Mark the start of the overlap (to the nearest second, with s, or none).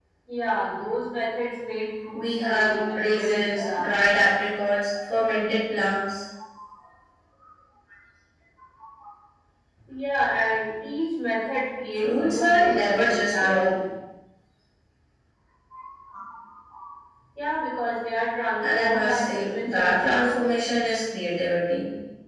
2 s